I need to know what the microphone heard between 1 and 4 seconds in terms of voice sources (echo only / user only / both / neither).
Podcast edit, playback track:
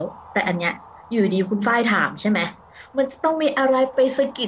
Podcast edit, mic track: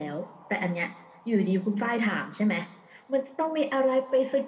echo only